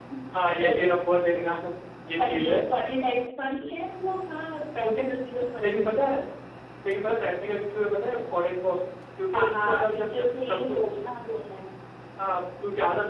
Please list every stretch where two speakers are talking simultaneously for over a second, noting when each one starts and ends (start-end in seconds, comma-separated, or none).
9.3-10.9